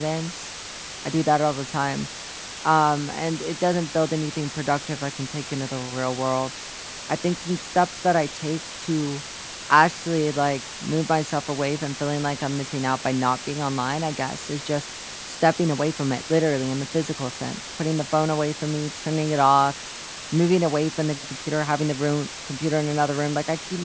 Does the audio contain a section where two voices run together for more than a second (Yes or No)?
No